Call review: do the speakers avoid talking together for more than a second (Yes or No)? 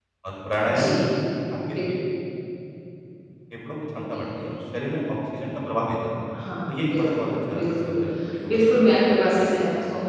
No